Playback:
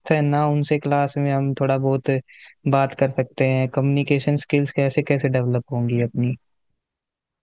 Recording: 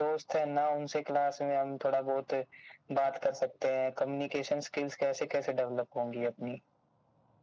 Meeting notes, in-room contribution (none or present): none